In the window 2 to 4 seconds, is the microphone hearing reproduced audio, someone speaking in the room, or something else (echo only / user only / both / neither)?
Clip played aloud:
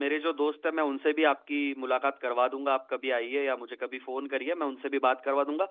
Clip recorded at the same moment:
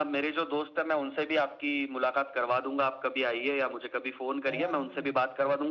echo only